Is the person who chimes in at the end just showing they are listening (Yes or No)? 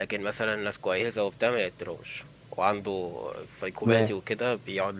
Yes